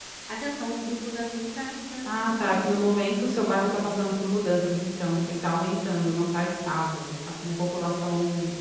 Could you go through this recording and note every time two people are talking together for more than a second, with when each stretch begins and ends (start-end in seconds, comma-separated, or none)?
2.0-3.4